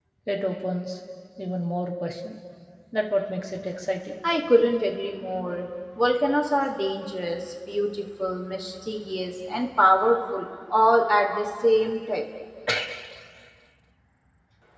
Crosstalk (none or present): none